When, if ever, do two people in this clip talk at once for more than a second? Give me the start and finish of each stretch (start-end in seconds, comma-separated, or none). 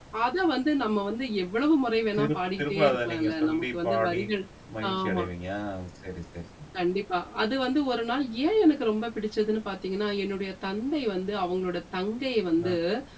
2.2-4.2